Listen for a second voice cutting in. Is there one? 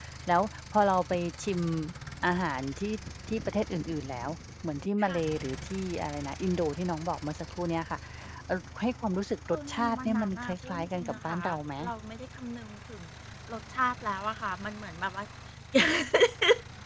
Yes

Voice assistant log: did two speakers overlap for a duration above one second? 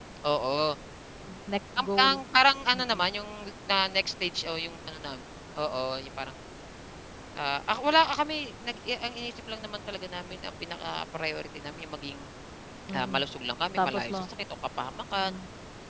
No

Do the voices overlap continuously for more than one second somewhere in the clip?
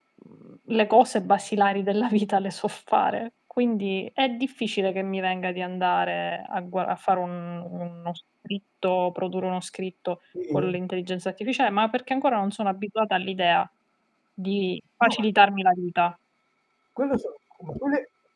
No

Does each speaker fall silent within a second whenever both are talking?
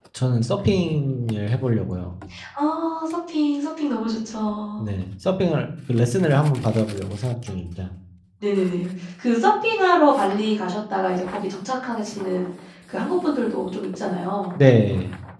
Yes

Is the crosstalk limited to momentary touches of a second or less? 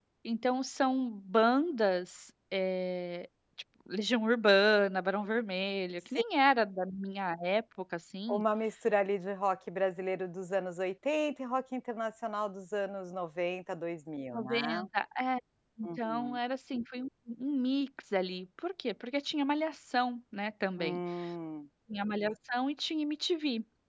Yes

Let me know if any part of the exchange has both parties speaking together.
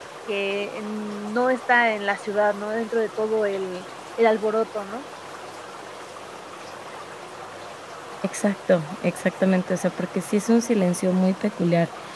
No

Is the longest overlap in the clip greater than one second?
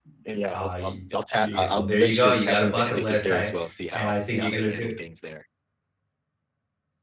Yes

